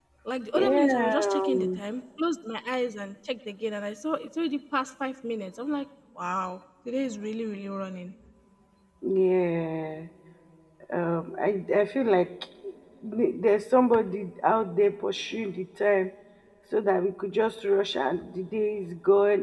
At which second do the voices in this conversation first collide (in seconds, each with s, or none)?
0.5 s